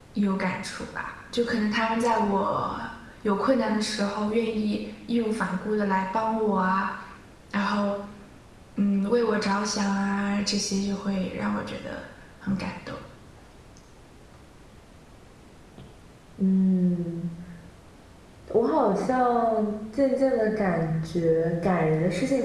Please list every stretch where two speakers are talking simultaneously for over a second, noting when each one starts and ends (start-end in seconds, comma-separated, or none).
none